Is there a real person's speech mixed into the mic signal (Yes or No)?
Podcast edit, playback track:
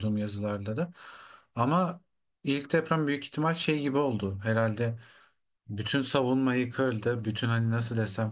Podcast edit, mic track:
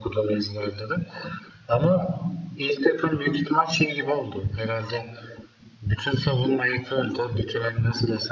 No